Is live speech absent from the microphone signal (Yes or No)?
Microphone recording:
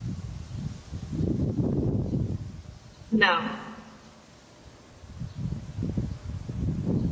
No